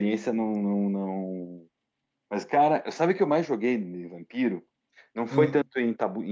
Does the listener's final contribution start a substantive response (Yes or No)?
No